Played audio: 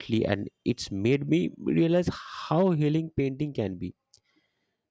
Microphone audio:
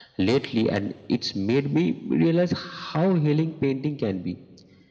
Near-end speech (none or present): none